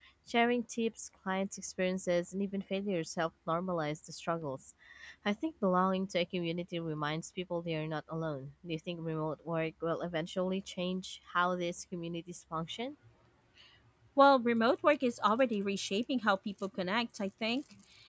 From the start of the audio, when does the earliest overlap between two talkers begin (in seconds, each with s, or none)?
none